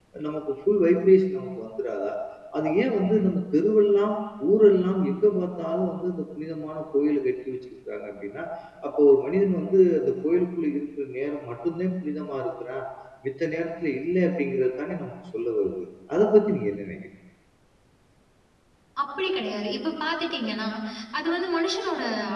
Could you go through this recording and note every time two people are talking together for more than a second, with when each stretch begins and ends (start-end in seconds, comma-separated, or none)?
none